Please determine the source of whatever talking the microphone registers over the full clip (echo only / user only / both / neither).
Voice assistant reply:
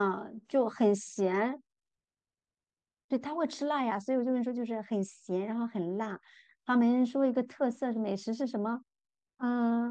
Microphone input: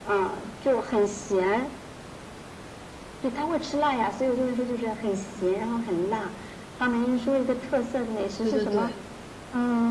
both